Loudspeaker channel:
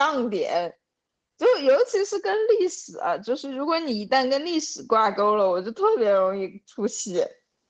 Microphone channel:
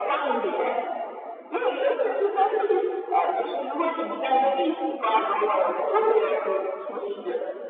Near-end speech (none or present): none